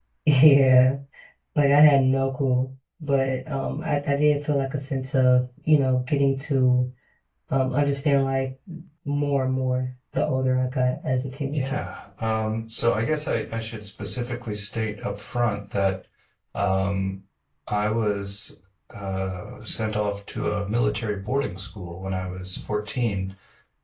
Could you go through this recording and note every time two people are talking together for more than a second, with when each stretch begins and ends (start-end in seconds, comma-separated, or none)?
none